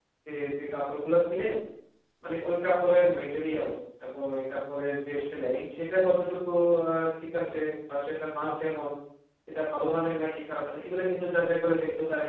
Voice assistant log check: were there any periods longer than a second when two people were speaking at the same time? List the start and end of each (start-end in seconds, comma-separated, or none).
none